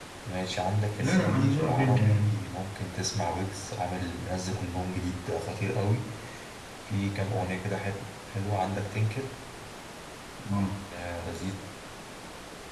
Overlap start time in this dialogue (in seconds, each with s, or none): 1.0 s